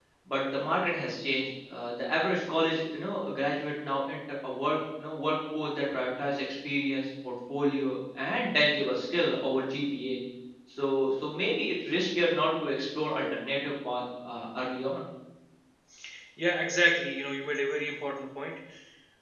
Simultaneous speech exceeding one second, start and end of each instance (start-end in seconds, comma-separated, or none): none